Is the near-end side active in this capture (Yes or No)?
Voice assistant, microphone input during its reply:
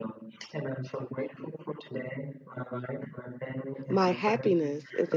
Yes